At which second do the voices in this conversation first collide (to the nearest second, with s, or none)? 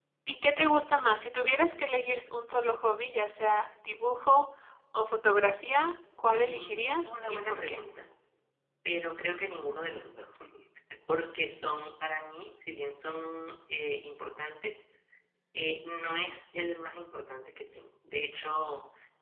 6 s